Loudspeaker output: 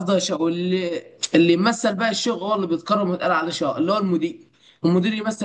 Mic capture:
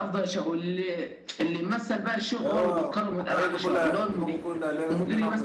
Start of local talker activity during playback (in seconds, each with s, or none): 2.4 s